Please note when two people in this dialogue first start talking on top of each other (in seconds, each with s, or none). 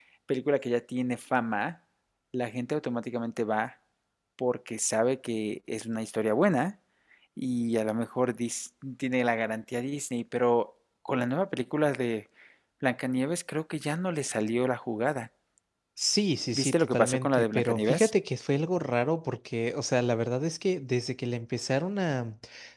16.6 s